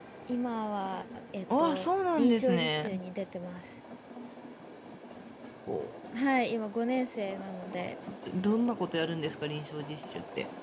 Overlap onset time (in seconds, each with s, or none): 1.5 s